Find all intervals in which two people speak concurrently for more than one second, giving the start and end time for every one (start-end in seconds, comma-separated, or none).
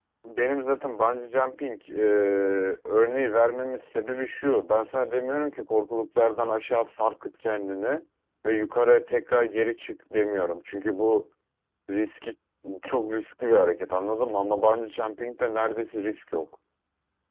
none